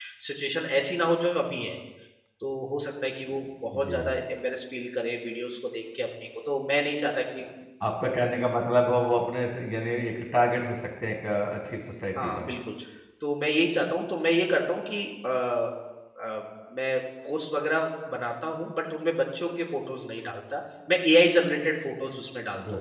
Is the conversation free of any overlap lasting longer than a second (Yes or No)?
Yes